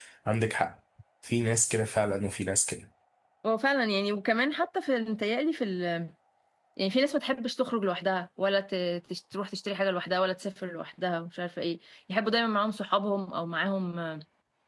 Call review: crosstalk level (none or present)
none